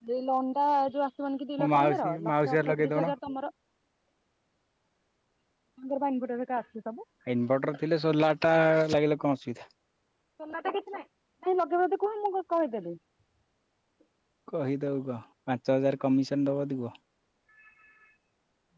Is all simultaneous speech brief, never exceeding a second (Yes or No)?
No